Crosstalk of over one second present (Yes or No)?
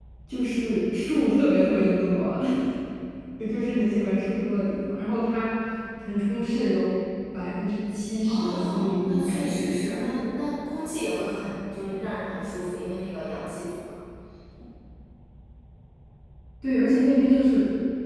Yes